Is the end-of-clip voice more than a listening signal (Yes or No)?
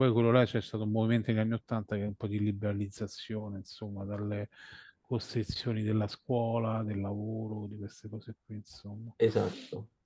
No